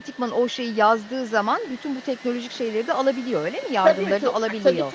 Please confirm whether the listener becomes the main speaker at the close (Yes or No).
Yes